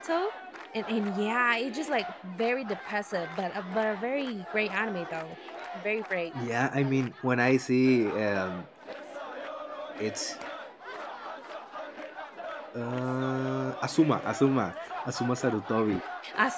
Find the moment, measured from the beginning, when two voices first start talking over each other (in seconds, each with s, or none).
none